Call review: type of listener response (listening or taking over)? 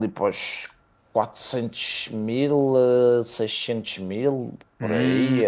taking over